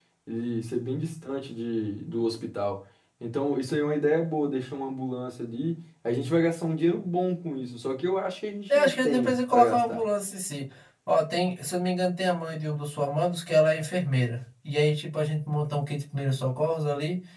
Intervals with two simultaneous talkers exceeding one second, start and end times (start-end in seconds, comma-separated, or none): 8.7-10.0